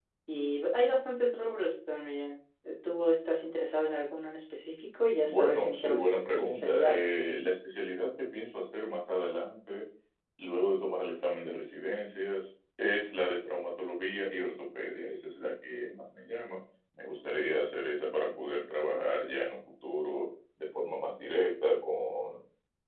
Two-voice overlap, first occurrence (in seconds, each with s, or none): 5.2 s